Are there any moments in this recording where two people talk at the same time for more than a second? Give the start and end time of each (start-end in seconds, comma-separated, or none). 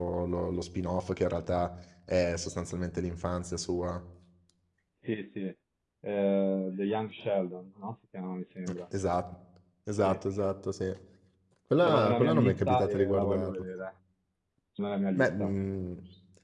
11.8-13.5